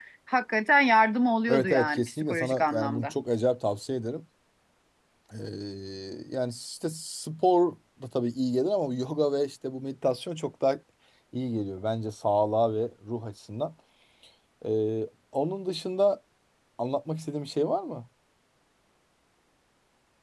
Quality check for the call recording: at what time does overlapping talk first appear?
1.5 s

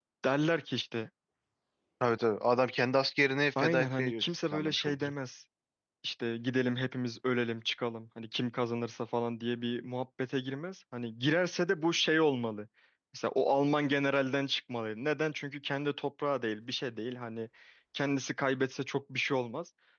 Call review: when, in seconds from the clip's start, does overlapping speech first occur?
3.6 s

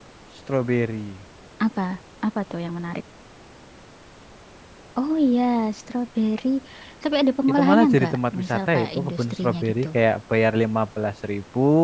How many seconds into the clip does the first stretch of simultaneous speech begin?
7.5 s

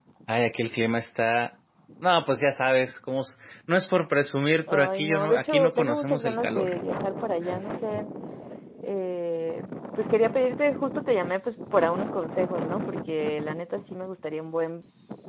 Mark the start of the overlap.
4.6 s

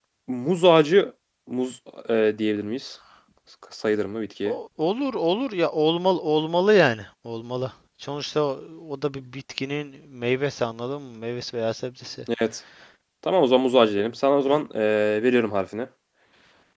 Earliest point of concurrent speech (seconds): none

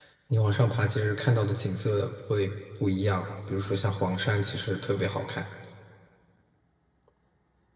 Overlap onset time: none

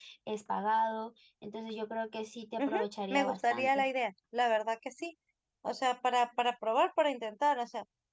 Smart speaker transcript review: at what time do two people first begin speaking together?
2.6 s

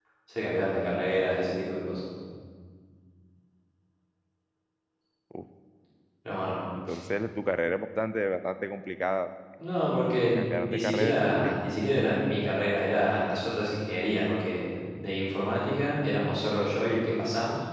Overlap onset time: 10.3 s

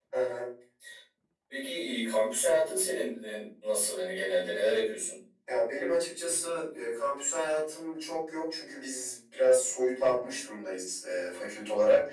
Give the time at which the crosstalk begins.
none

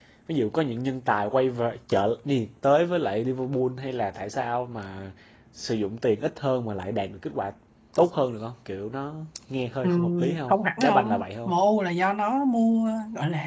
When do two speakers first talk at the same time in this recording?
9.8 s

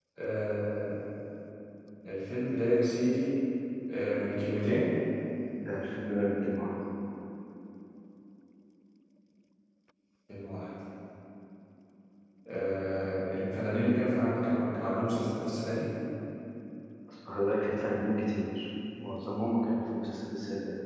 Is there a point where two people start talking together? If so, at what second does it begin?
none

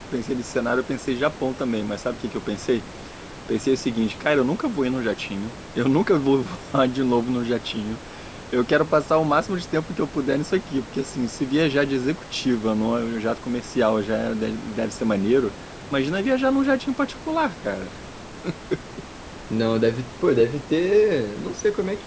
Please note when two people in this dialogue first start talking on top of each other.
none

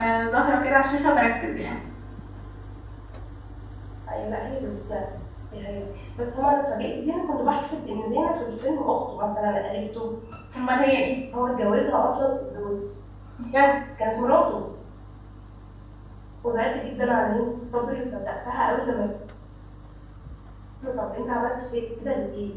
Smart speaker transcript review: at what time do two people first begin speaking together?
none

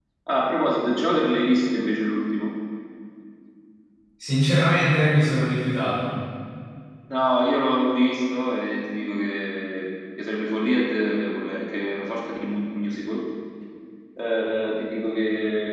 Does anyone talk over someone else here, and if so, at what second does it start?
none

